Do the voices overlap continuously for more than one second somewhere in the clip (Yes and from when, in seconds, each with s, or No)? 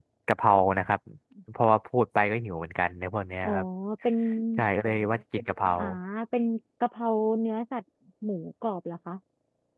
No